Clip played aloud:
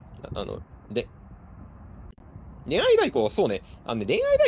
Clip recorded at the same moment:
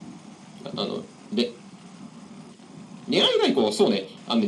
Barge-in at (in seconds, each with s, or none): none